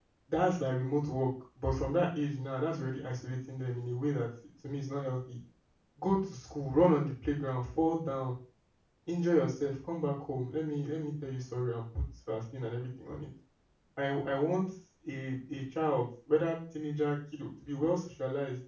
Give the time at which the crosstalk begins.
none

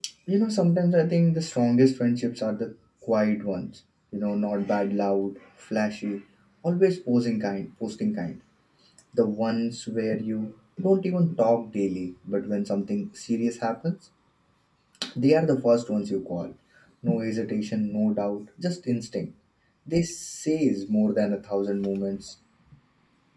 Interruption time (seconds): none

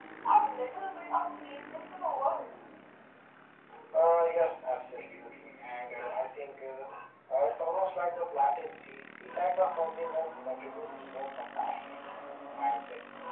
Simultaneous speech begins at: none

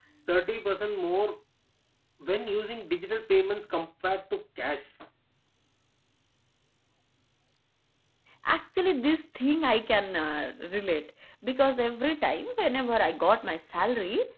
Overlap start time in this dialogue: none

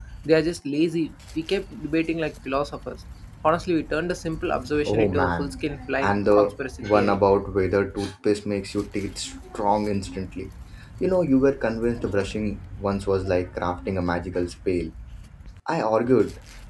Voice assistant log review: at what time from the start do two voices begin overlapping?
4.8 s

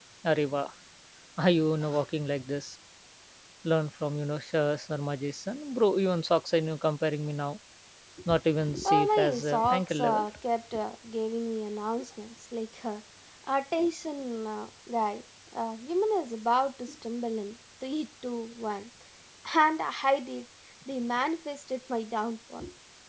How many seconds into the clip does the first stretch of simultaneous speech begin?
8.8 s

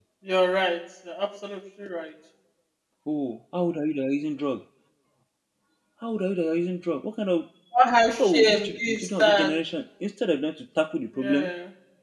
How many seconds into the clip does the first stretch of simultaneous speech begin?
8.2 s

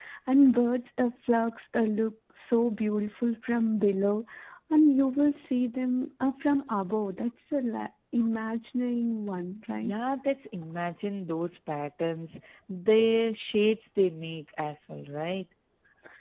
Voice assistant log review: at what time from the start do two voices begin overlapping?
none

